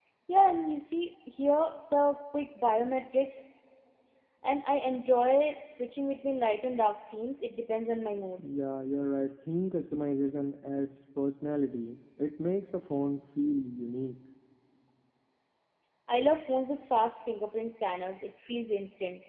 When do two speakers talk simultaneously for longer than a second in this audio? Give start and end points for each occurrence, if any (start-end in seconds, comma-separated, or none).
none